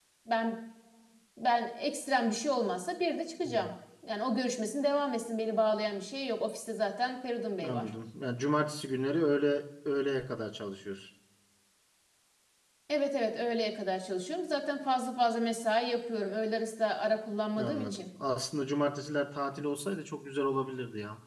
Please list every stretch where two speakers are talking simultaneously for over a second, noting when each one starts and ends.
none

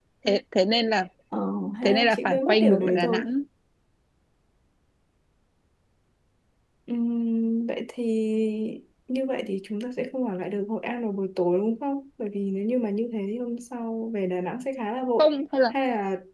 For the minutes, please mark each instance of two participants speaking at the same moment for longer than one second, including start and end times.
1.8-3.2

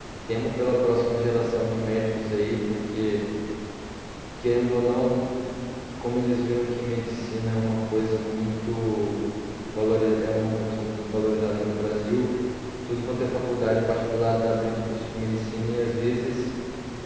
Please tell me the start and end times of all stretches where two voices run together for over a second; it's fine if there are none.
none

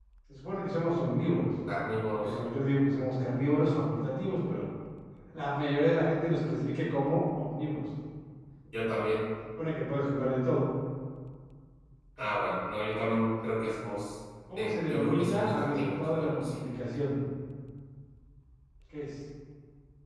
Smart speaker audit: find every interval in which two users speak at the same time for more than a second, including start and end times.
14.6-16.6

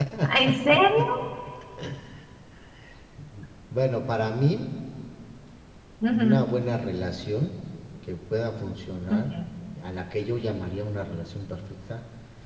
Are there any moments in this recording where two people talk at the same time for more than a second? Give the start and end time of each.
none

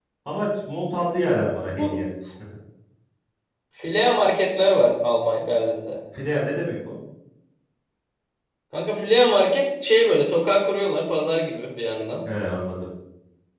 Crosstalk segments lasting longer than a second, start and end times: none

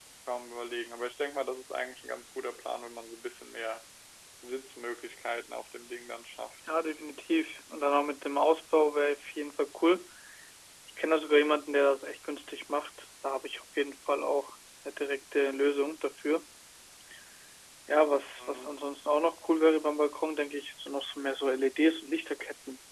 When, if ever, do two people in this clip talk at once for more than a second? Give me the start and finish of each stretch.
none

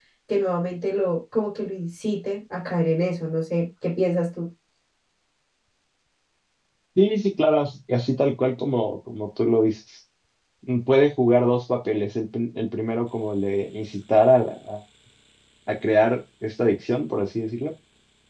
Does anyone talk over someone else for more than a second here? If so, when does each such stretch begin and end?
none

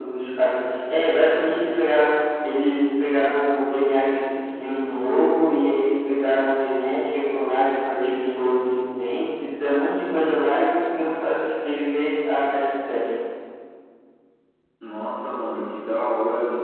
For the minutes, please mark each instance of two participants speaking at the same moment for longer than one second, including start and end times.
none

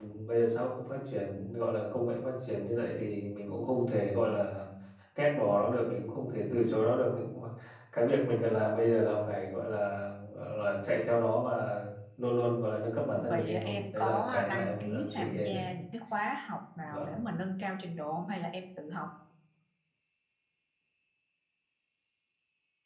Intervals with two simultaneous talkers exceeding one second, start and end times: 13.3-15.5

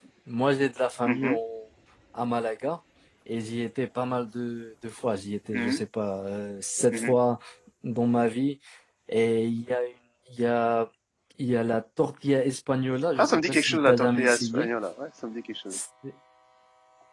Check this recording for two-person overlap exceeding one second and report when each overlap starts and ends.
13.2-14.7

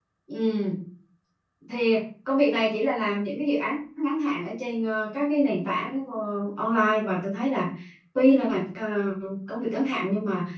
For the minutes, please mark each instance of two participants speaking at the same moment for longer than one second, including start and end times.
none

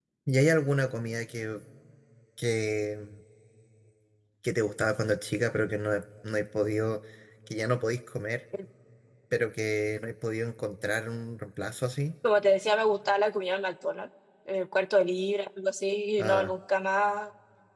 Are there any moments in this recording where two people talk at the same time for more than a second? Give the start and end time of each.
none

